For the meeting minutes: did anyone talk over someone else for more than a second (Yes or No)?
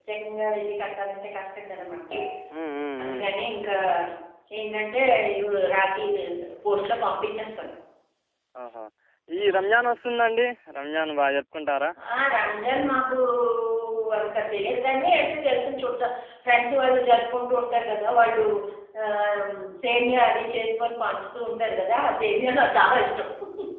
No